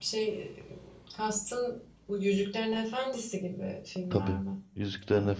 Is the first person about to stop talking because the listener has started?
Yes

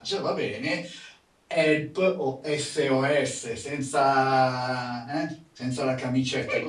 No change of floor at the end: No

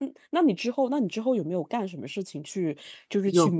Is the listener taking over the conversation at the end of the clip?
No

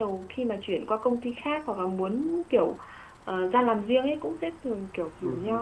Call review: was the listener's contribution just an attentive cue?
Yes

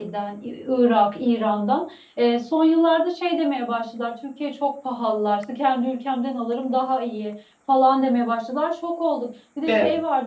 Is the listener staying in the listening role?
Yes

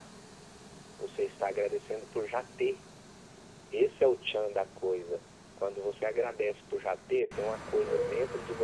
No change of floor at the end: Yes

